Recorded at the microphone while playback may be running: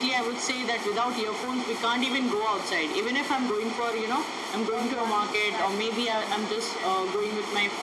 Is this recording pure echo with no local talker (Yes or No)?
No